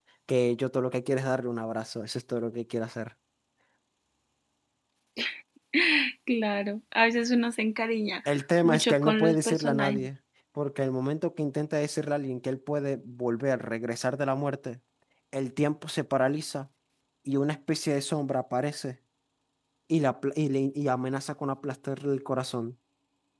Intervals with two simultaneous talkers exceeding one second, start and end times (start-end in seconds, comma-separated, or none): 8.6-10.0